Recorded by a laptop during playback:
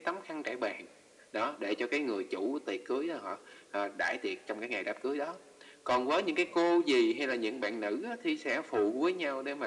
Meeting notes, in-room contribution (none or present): none